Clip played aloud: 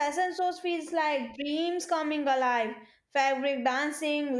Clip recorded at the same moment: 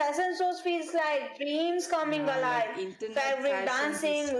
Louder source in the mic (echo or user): echo